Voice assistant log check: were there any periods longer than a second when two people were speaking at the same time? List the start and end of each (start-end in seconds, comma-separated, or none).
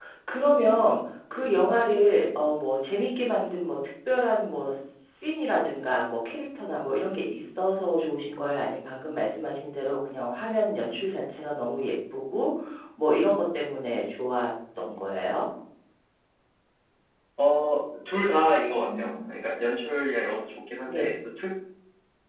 none